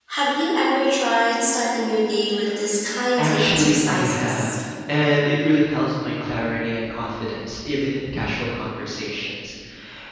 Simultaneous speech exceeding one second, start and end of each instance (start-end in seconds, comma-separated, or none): 3.2-4.5